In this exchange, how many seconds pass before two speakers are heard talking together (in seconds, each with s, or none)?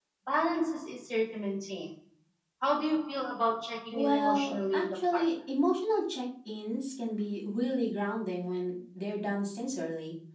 3.9 s